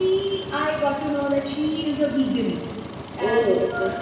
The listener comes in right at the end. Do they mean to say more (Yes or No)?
No